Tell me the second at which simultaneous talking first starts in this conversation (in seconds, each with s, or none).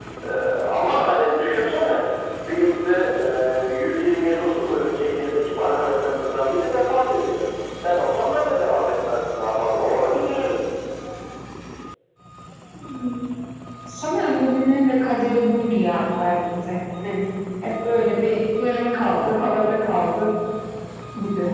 none